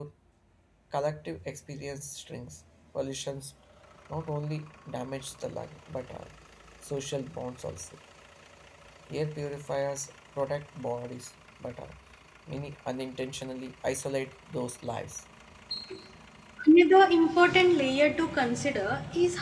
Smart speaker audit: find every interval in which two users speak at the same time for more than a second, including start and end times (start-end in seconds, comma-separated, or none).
none